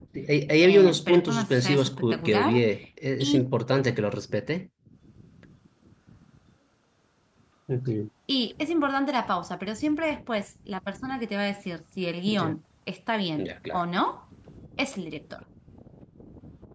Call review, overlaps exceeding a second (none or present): present